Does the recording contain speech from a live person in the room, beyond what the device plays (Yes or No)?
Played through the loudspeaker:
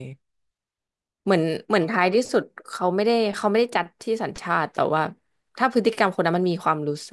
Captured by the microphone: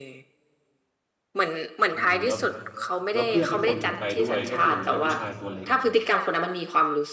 Yes